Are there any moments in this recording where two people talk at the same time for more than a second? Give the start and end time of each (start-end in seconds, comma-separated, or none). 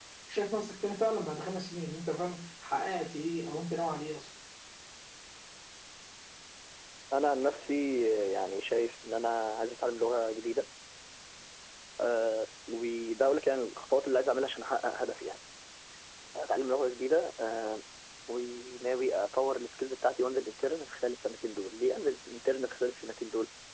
none